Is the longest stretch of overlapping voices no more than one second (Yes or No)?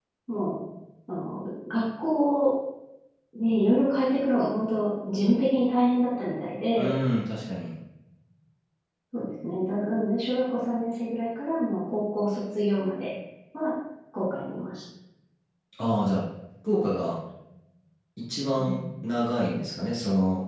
Yes